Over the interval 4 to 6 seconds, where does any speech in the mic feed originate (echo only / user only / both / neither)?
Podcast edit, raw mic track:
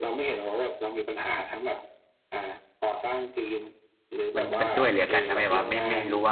both